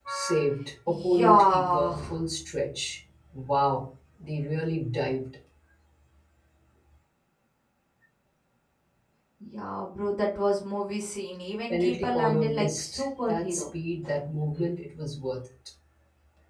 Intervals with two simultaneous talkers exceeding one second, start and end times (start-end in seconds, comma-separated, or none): 0.9-2.2, 11.7-13.7